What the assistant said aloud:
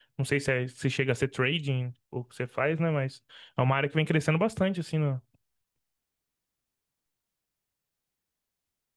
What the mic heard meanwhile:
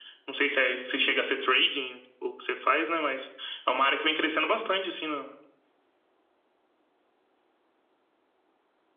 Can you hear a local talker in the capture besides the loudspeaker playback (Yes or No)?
No